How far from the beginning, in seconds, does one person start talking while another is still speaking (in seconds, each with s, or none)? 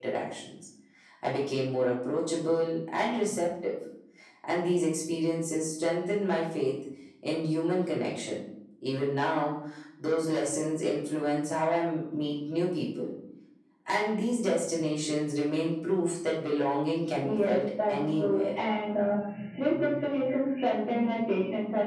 17.2 s